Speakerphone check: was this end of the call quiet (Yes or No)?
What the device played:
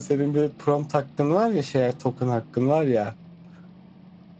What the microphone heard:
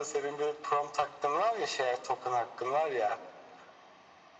Yes